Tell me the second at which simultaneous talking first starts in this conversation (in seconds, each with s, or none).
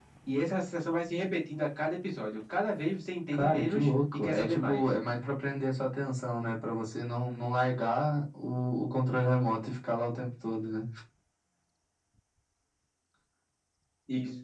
3.3 s